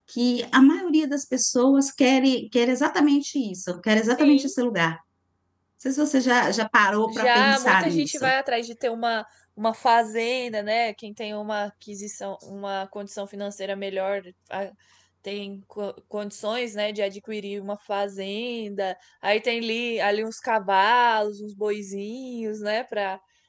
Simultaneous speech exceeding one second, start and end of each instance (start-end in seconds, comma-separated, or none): 7.1-8.3